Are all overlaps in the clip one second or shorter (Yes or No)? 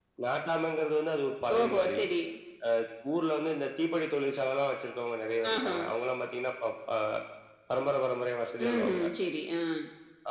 Yes